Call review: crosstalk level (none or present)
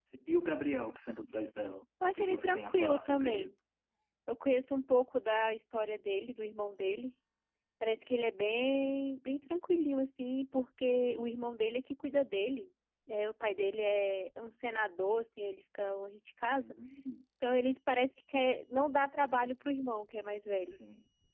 present